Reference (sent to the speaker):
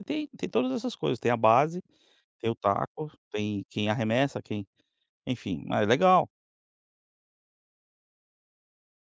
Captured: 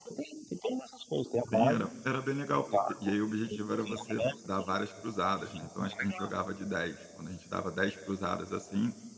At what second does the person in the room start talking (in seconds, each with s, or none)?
1.5 s